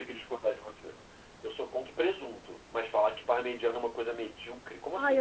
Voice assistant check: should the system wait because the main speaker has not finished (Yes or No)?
No